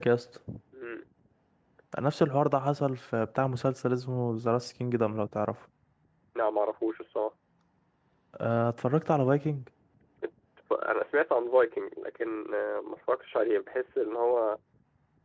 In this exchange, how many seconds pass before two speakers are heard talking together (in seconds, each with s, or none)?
none